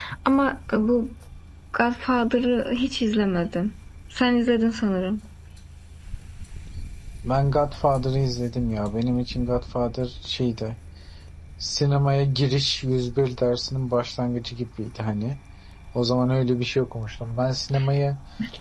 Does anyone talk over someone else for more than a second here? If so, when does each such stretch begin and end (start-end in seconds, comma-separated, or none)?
none